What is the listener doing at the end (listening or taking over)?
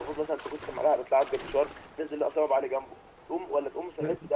listening